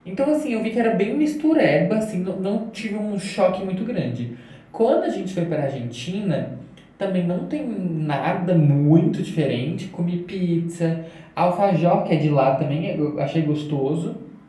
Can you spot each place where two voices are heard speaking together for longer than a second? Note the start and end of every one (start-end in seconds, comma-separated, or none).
none